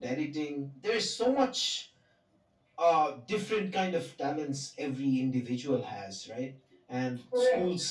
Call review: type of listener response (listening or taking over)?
listening